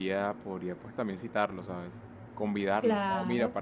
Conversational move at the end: listening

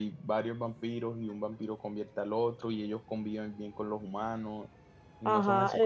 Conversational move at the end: taking over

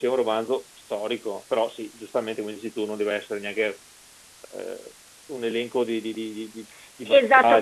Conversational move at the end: taking over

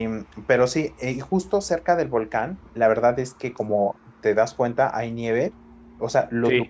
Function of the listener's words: listening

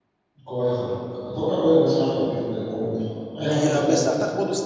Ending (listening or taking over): taking over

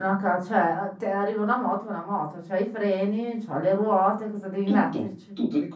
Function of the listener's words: taking over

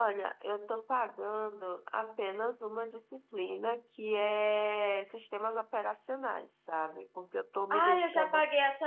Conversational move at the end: taking over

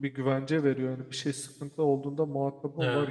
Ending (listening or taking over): taking over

